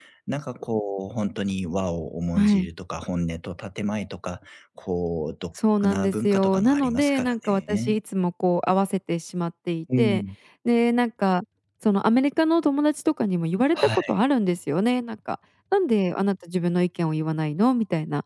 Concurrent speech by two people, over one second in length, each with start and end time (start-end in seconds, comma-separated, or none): 5.8-8.0